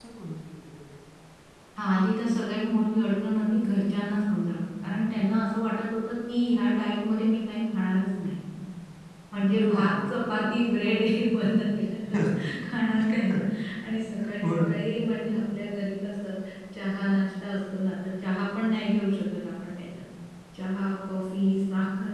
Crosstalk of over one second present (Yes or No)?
No